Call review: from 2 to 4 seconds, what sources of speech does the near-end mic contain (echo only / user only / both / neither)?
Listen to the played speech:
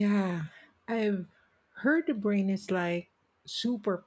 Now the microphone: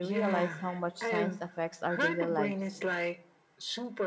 both